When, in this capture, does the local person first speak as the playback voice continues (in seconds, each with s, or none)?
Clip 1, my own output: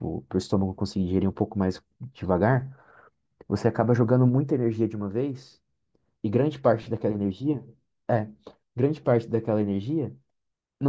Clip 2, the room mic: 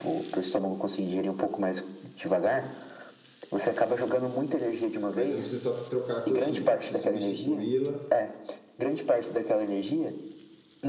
5.1 s